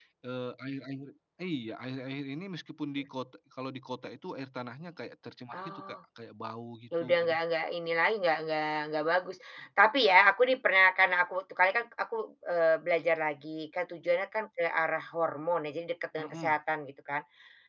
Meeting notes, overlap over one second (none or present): none